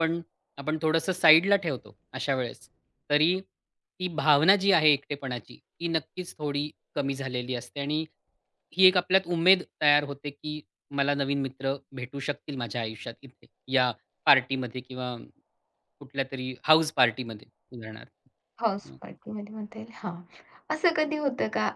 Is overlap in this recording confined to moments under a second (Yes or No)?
Yes